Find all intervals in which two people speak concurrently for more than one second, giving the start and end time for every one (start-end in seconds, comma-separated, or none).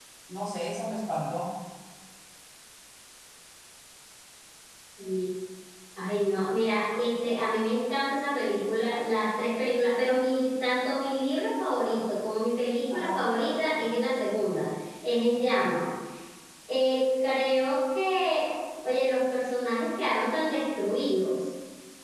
none